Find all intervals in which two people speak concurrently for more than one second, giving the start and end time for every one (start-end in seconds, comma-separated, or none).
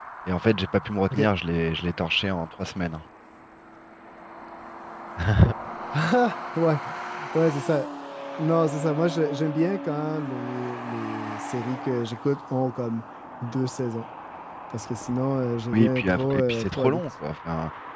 15.7-17.0